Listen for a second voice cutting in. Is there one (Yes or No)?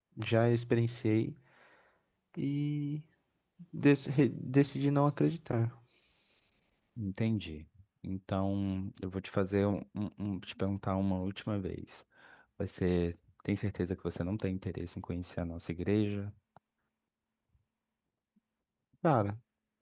No